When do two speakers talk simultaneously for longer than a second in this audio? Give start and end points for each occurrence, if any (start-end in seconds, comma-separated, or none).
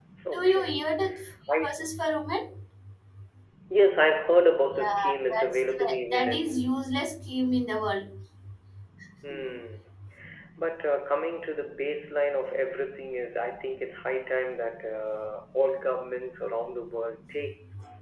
4.7-6.6